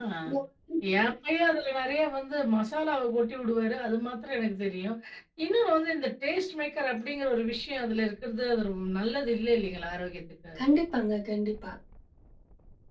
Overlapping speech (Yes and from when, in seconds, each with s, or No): No